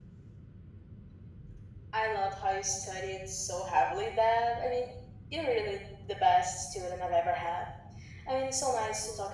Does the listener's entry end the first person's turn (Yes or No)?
No